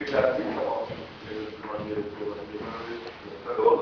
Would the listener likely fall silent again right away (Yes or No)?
No